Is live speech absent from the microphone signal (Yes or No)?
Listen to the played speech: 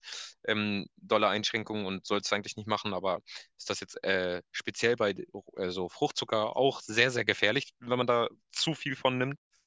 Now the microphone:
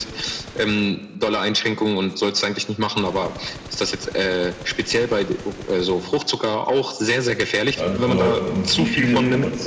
No